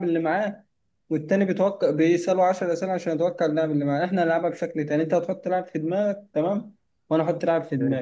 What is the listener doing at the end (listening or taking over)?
listening